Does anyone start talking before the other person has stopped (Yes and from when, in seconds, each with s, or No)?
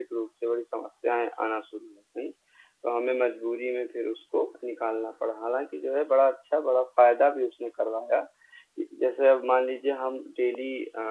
No